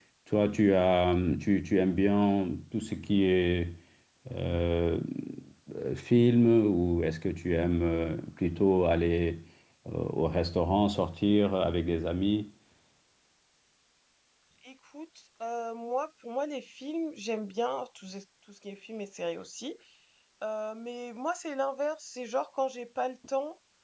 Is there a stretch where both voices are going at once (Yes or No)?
No